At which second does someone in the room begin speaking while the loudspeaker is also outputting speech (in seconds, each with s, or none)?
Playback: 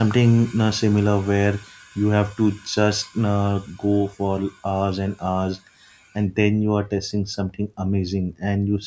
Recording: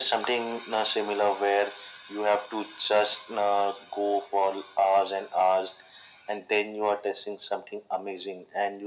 none